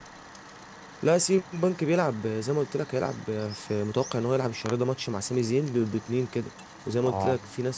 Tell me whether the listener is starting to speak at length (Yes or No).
No